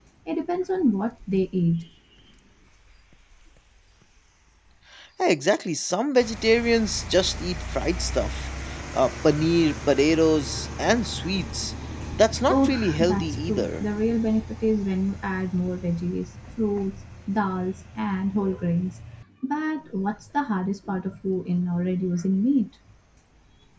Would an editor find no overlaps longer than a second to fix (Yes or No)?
No